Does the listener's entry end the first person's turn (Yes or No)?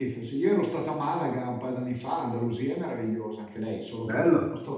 No